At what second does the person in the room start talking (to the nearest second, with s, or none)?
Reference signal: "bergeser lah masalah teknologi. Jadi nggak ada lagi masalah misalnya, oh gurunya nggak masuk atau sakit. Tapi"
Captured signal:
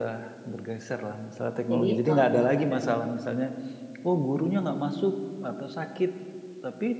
2 s